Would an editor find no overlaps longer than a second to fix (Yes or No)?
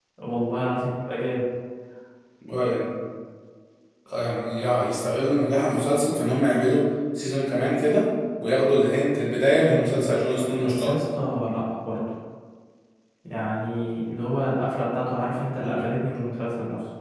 Yes